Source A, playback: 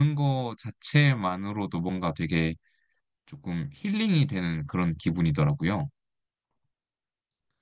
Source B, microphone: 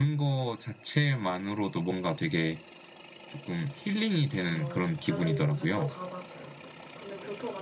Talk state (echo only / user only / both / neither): both